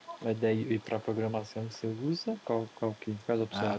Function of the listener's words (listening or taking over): taking over